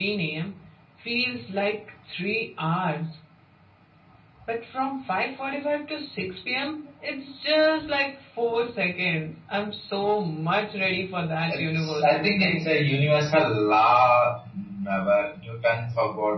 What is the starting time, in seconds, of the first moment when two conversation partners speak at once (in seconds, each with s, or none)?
11.5 s